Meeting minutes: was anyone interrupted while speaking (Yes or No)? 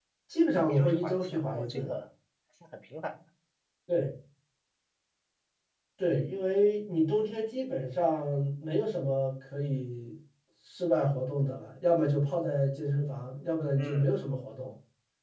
Yes